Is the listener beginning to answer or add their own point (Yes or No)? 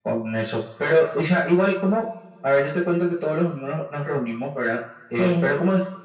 No